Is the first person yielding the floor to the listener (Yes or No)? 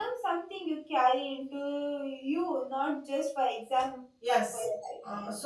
Yes